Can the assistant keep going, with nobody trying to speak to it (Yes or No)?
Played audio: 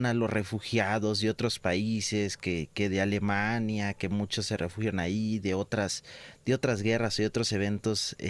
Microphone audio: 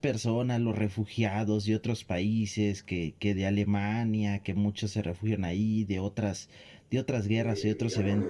No